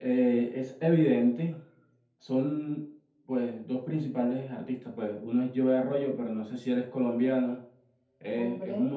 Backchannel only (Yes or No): Yes